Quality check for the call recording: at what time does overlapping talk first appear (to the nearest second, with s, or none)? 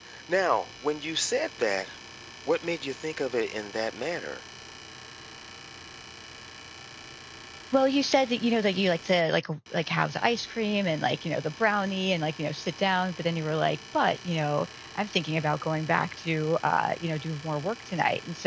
none